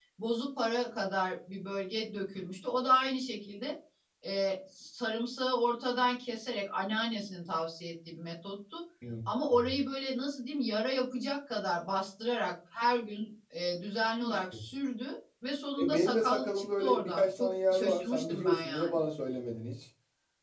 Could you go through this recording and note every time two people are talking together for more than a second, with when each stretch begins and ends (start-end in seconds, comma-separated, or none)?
15.8-19.0